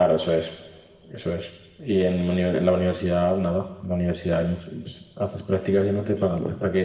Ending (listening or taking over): listening